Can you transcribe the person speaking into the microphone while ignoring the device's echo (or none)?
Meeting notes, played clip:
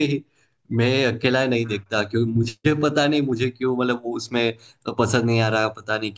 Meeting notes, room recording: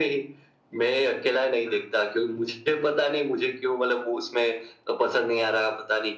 none